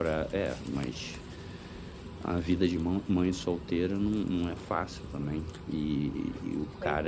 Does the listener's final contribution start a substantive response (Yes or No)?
No